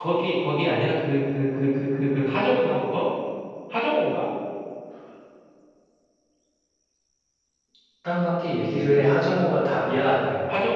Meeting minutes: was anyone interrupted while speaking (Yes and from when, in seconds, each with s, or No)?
No